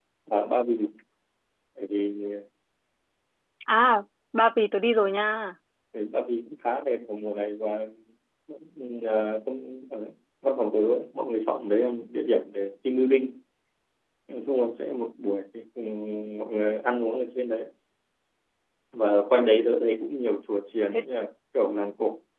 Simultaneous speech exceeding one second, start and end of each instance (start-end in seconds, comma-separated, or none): none